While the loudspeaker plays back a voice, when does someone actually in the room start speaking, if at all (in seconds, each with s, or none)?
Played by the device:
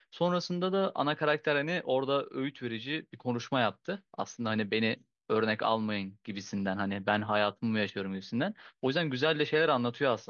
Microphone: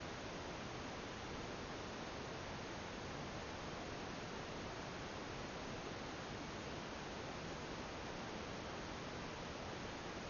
none